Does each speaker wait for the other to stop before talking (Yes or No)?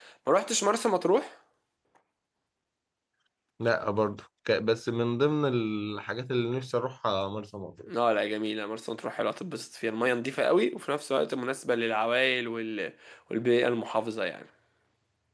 Yes